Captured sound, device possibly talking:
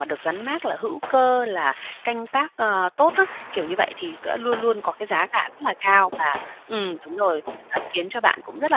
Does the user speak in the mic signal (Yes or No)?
Yes